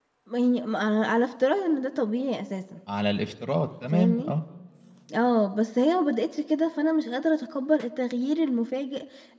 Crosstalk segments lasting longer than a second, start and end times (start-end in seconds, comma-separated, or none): none